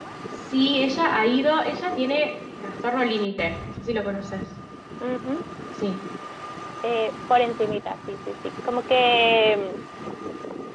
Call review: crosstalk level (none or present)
none